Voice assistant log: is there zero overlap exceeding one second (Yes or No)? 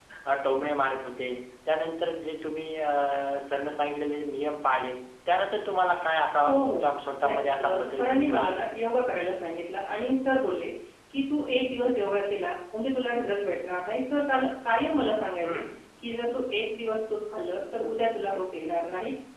No